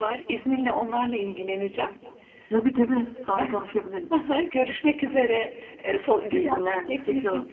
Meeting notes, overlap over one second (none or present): present